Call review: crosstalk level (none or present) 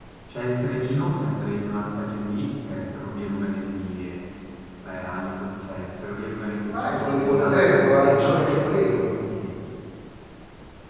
present